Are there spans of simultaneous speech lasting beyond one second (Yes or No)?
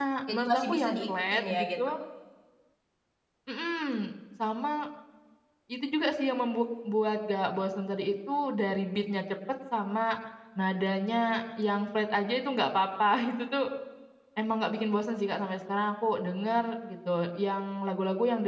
Yes